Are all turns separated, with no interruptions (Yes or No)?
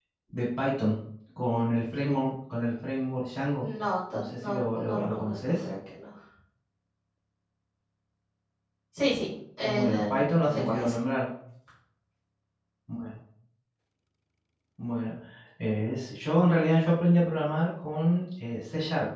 No